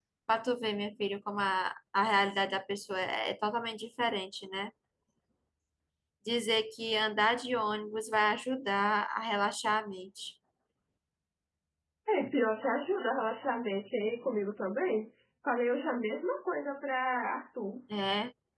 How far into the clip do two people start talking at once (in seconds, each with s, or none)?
none